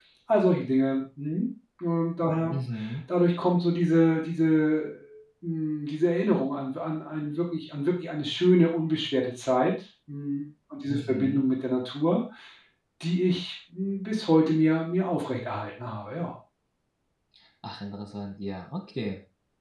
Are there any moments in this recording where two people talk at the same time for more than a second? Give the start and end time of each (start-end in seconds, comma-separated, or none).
none